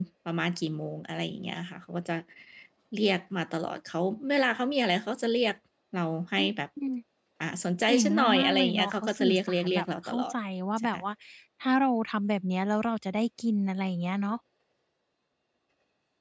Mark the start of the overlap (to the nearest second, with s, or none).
8 s